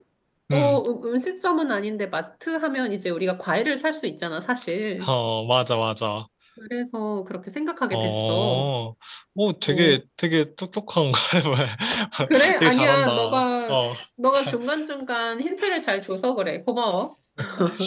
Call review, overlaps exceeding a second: present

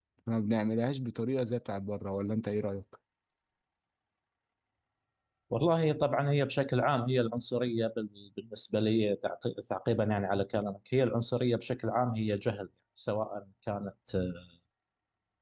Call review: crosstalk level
none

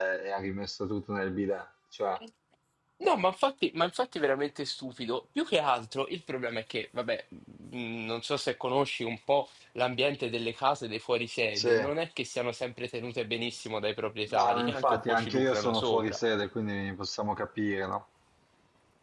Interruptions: present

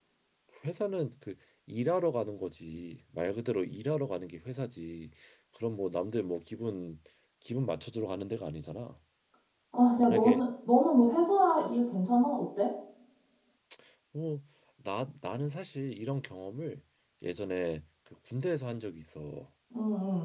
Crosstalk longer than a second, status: none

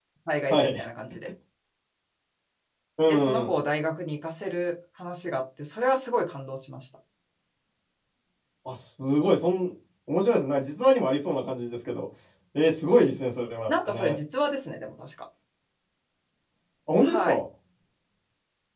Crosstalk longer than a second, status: none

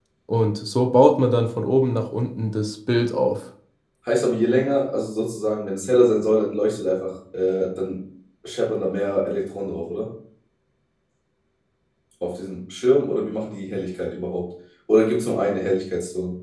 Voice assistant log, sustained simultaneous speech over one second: none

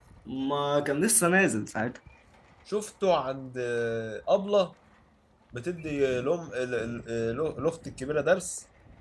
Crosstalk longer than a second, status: none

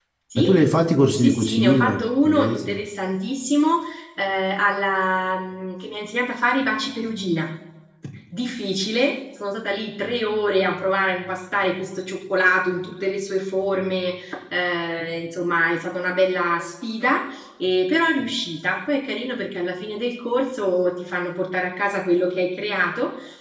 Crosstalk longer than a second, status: present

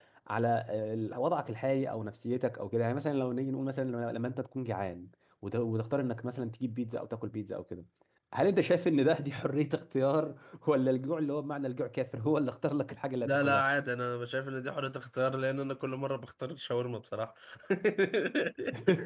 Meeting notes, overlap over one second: none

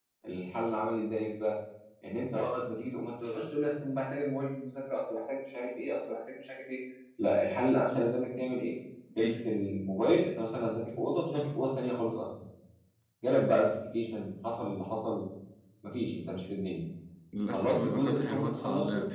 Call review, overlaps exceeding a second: present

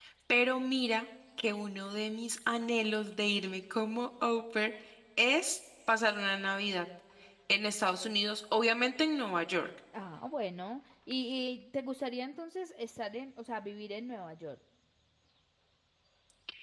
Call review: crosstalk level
none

